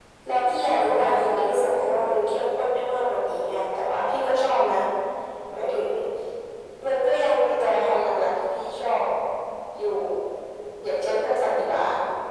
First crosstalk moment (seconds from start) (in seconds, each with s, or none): 0.7 s